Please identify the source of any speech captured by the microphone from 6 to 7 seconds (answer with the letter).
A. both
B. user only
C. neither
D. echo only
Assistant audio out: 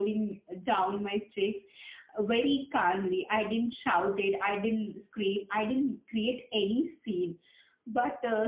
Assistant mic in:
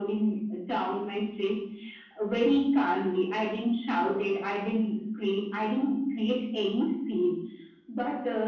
D